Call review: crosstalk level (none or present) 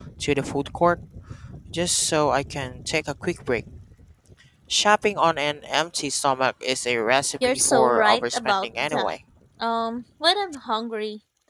present